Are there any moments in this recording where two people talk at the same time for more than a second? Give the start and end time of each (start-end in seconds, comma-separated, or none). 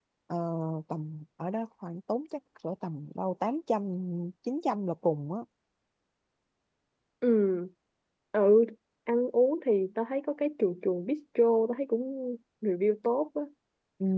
none